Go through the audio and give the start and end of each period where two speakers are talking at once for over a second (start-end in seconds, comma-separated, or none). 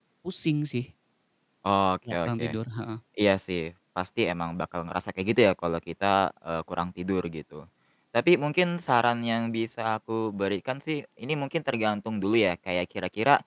none